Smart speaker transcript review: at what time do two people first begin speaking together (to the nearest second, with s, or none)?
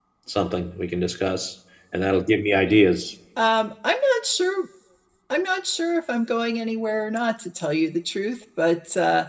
none